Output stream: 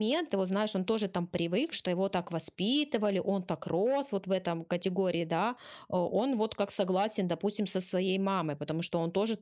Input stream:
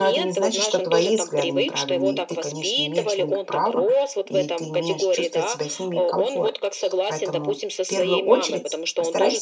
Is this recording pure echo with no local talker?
No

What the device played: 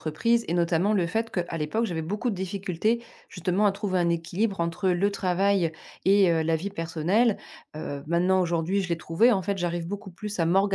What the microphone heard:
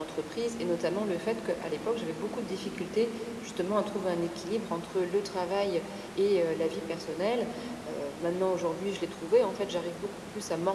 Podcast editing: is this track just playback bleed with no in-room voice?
Yes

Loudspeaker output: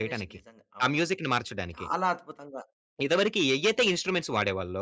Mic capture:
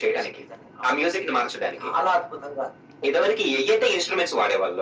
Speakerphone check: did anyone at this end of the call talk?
No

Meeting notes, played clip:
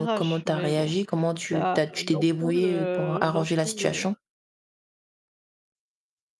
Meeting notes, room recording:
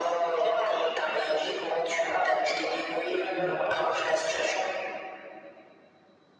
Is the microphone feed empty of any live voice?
No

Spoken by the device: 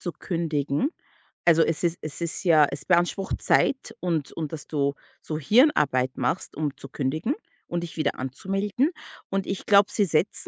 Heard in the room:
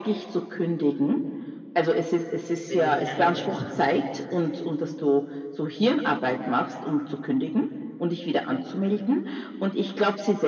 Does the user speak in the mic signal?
Yes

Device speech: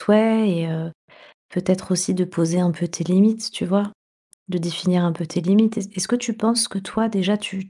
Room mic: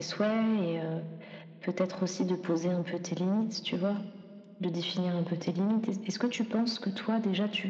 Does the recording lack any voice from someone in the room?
Yes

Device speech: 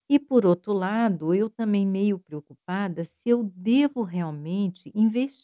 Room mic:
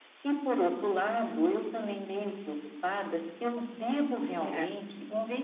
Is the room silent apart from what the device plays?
No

